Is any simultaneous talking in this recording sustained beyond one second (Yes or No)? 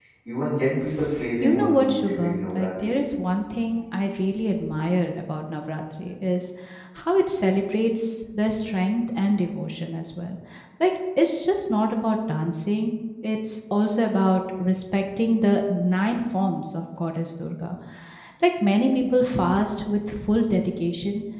Yes